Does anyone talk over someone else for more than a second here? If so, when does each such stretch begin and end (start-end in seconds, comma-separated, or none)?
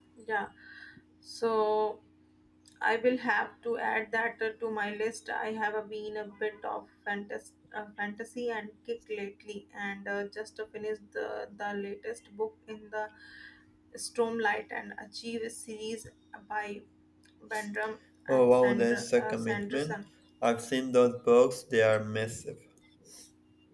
18.4-20.0